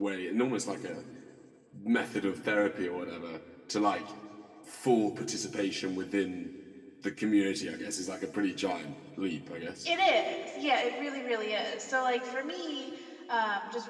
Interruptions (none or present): none